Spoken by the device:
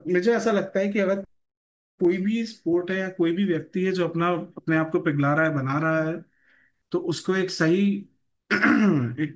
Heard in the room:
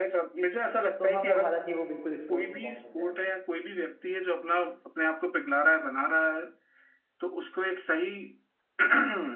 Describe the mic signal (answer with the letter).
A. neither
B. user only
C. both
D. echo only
C